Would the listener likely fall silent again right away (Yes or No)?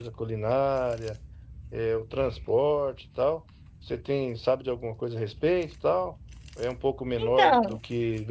Yes